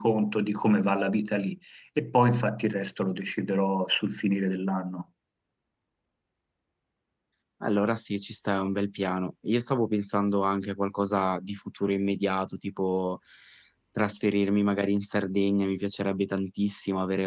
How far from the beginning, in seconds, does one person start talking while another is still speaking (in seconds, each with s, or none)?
none